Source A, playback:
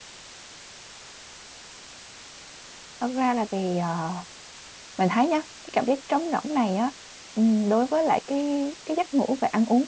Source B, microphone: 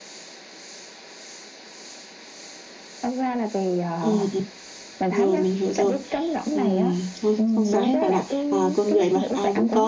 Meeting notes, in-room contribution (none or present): present